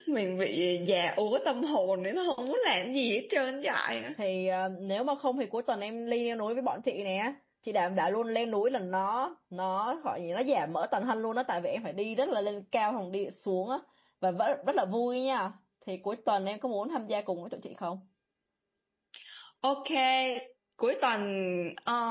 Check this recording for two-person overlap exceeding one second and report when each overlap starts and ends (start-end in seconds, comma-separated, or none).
none